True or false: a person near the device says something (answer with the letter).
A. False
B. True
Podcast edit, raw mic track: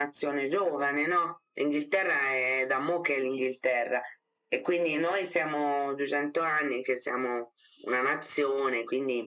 A